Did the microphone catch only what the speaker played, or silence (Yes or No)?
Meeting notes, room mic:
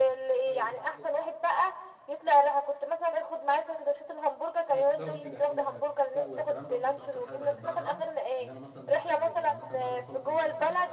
No